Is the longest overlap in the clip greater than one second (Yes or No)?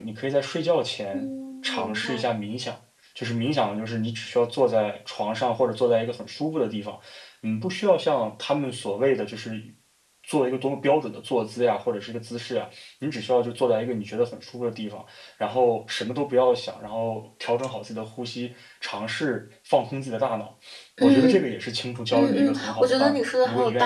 Yes